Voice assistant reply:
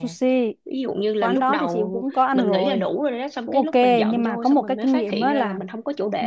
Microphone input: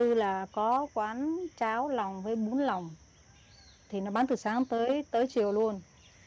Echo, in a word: none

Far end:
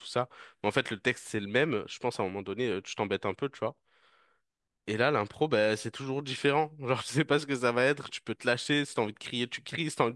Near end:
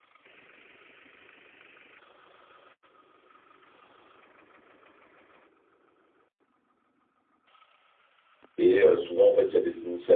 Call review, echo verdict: none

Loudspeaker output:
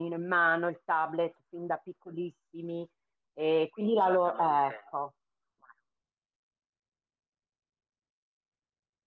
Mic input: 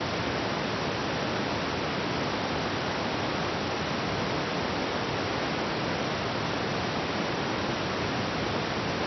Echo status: none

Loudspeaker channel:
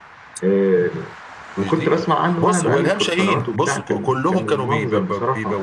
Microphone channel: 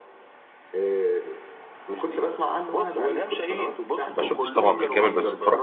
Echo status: present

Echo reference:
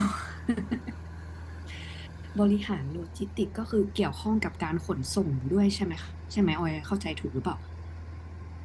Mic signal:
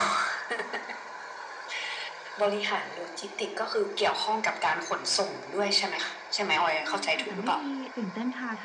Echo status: present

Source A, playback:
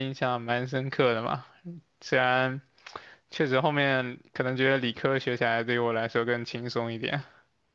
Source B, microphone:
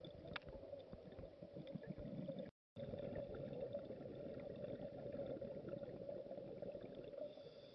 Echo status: none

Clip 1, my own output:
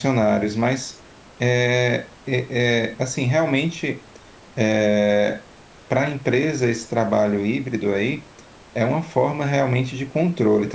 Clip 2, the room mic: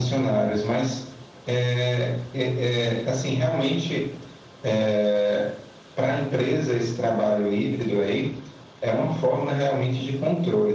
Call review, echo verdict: present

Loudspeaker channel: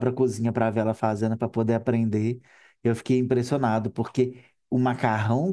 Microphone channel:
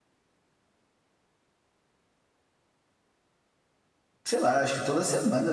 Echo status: none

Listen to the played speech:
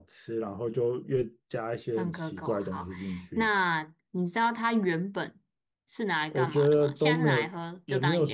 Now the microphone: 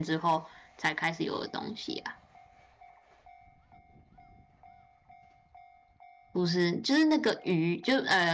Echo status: none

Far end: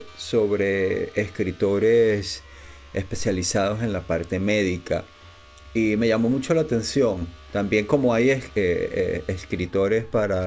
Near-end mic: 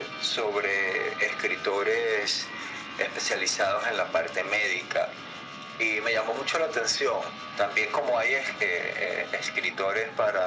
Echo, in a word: present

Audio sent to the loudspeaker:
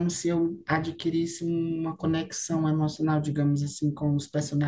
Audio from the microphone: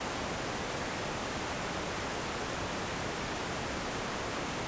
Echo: none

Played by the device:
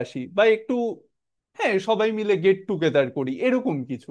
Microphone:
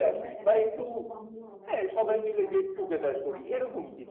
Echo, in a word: present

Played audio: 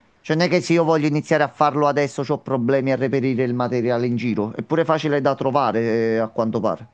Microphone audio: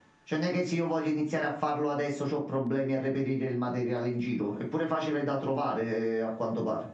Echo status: present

